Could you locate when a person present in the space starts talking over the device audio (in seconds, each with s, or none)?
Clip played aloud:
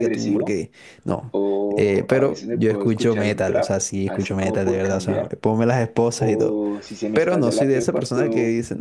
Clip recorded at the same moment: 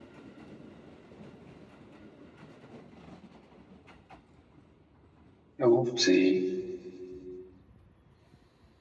5.6 s